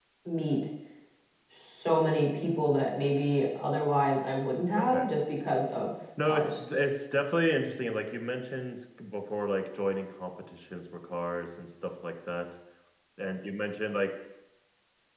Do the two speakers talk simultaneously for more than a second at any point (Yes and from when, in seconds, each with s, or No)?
No